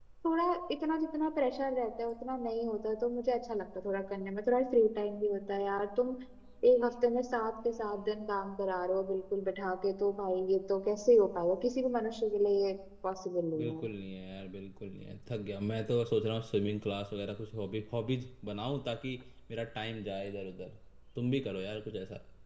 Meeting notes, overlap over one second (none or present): none